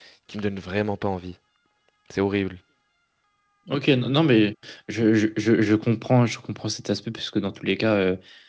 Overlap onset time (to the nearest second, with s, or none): none